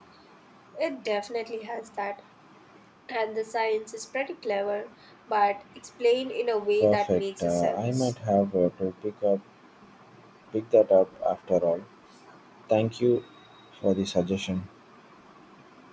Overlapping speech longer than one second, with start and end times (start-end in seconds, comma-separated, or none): 6.8-8.1